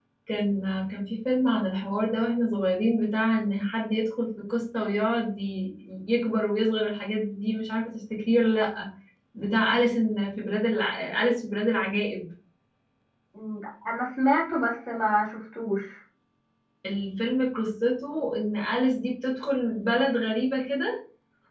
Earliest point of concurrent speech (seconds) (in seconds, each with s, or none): none